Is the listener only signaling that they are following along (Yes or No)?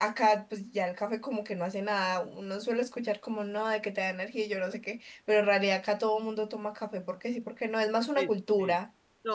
No